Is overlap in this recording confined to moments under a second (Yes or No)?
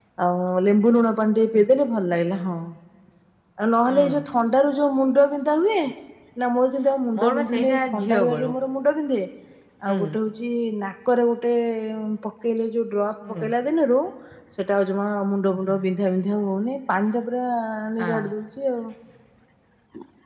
No